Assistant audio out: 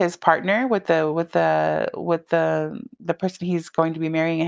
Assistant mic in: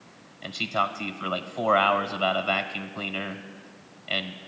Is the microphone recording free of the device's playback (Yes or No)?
Yes